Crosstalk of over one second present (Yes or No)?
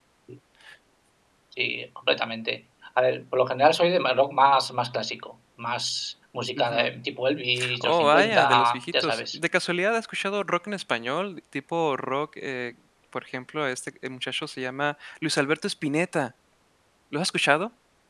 Yes